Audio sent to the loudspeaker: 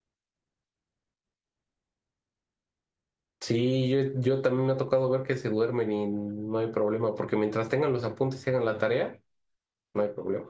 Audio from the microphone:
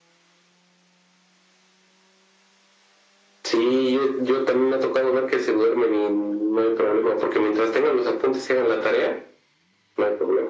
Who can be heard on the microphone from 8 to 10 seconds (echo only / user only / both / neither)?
echo only